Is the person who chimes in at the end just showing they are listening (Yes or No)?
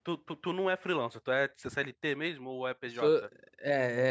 No